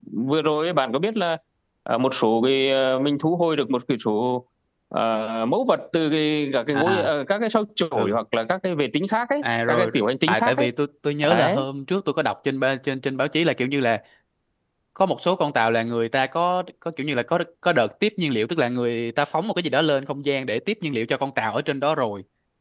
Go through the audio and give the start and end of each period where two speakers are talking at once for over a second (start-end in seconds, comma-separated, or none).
9.4-10.7